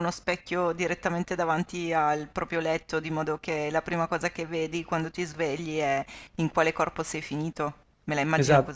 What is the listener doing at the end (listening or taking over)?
taking over